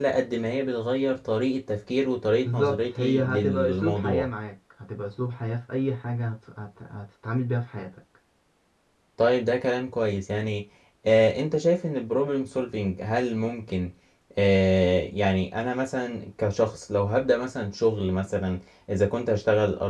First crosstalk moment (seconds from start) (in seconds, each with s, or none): 2.3 s